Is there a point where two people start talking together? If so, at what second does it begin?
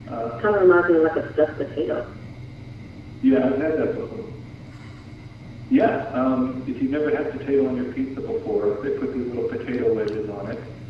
none

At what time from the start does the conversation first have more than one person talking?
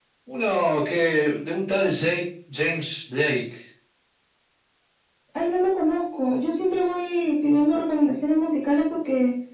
none

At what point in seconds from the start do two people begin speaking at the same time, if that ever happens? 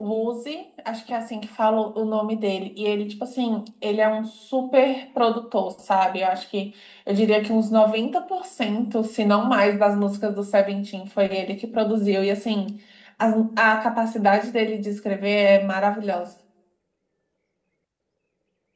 none

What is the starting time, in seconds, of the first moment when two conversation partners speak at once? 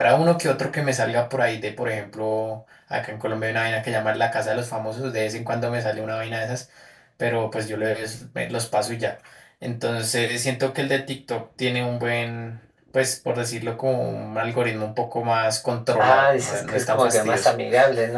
16.0 s

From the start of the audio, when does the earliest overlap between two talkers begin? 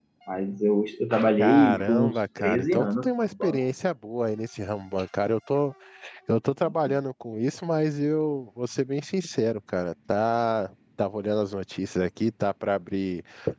1.4 s

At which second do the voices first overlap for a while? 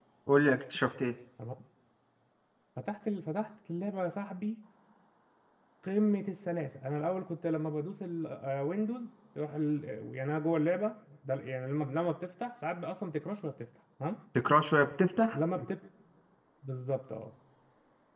none

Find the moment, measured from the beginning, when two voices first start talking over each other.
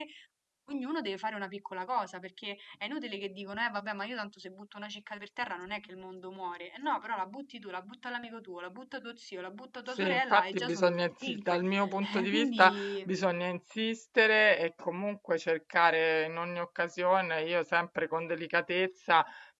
10.0 s

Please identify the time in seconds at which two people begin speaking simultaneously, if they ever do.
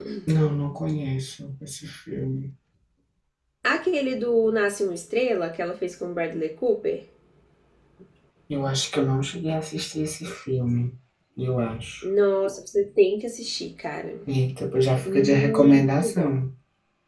15.0 s

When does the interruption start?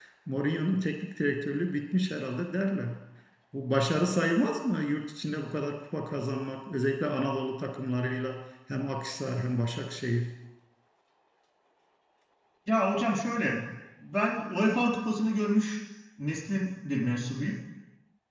none

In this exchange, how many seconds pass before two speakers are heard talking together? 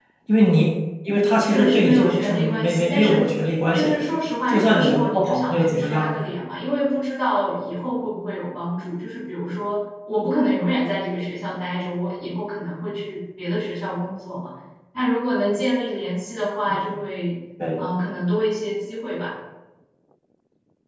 1.5 s

